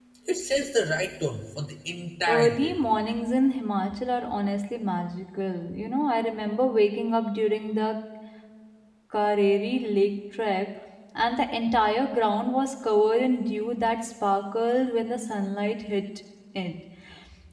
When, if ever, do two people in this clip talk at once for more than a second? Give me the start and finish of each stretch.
none

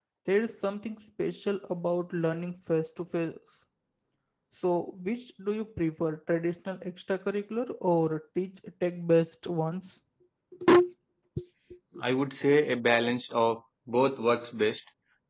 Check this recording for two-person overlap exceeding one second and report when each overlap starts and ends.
none

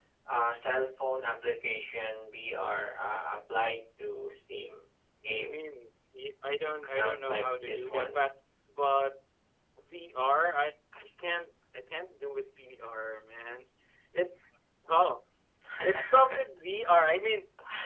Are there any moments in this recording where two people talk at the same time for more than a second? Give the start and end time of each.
6.9-8.2

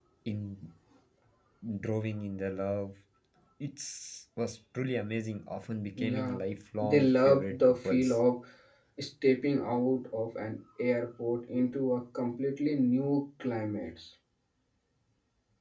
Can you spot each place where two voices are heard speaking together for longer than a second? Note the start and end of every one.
6.8-8.2

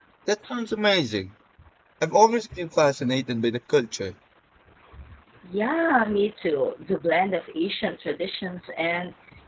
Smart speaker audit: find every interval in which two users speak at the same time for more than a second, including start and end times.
none

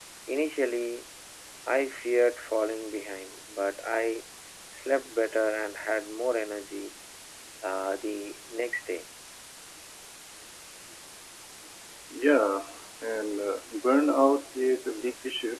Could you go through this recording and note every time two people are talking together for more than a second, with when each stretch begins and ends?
none

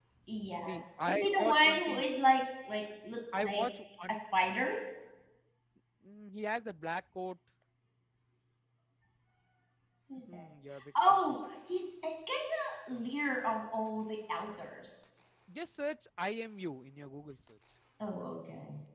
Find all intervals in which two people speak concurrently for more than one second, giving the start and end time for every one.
0.7-2.0

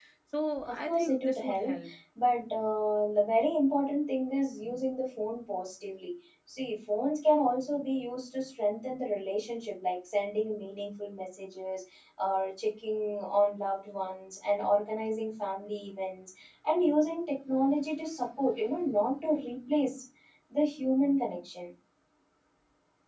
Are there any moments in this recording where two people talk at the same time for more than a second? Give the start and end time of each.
0.7-1.9

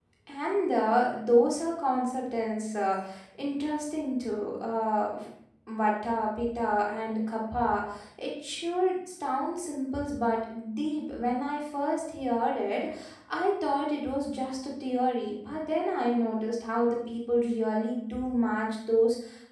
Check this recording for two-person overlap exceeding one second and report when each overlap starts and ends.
none

